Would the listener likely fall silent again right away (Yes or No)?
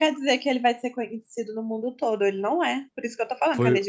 No